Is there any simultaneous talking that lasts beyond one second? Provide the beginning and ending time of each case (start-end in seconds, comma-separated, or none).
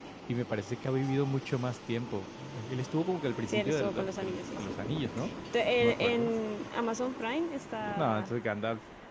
3.5-4.8